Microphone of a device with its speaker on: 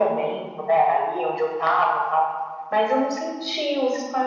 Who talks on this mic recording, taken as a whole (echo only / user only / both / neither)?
echo only